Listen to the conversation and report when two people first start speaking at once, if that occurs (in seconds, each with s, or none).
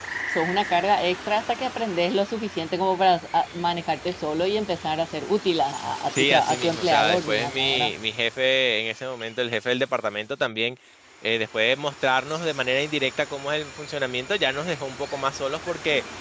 6.2 s